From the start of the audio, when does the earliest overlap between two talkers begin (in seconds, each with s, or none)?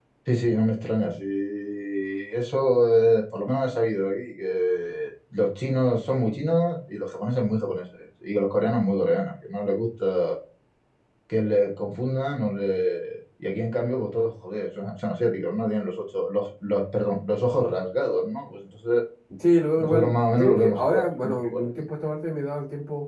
19.8 s